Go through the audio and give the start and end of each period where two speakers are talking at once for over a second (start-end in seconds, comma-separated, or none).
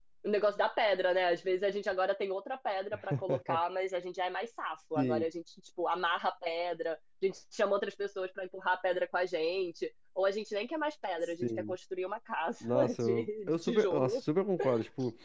12.6-14.2